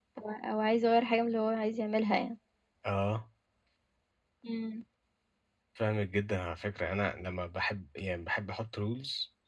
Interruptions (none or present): none